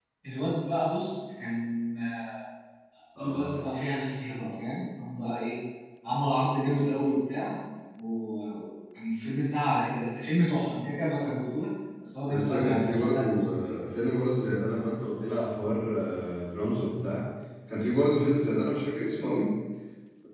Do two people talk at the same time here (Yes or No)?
Yes